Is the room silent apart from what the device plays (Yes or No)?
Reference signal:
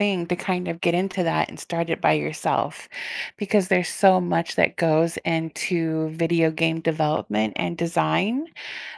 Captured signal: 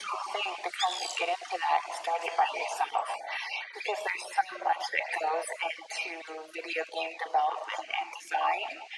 Yes